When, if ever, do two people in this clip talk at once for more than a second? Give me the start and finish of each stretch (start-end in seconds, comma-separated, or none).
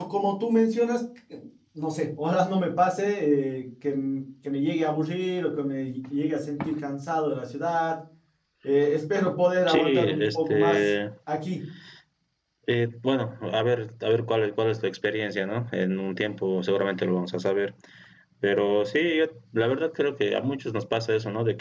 9.7-10.9